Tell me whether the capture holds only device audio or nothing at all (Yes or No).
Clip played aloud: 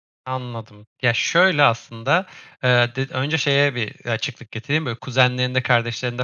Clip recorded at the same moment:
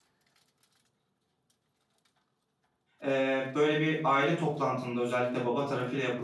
No